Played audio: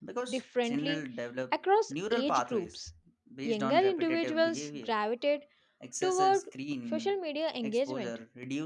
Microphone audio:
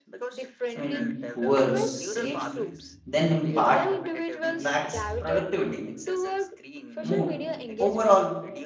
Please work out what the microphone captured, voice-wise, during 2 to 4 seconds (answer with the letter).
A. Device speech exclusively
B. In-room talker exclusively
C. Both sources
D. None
C